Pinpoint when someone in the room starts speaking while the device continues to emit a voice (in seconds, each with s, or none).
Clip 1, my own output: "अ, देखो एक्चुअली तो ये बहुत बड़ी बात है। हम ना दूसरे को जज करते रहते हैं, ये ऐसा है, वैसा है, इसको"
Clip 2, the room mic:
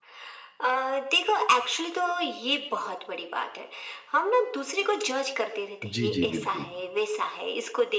5.8 s